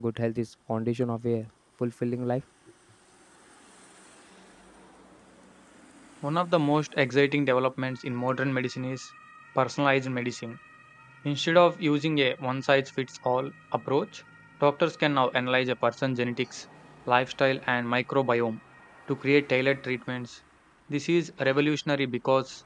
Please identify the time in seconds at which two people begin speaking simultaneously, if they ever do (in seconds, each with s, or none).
none